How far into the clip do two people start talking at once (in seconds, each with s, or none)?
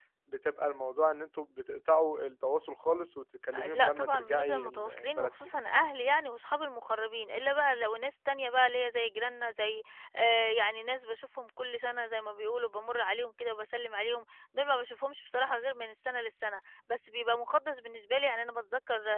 3.5 s